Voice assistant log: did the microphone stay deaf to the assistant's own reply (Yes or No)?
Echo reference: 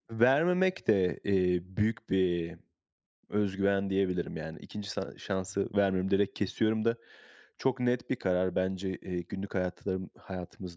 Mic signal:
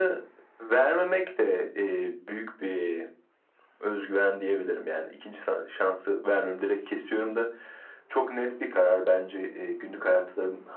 No